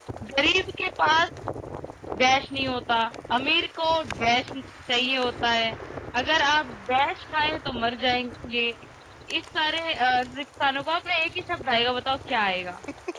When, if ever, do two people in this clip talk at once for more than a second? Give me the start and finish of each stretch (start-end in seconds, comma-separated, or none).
none